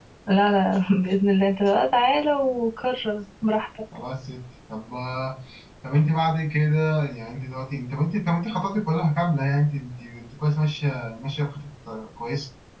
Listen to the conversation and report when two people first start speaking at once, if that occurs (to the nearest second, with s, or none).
none